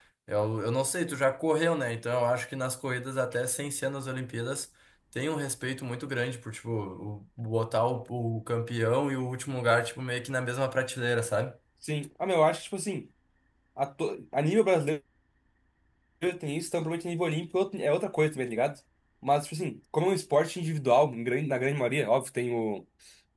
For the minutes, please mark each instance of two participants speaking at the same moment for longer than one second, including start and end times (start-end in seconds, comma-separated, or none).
none